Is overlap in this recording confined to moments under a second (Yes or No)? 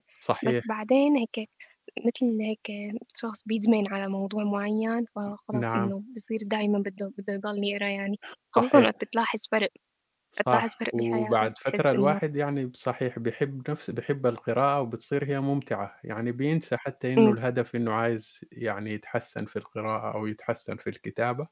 No